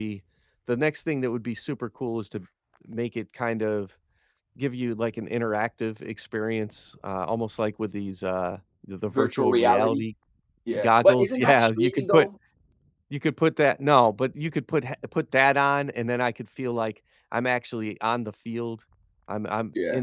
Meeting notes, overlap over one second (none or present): present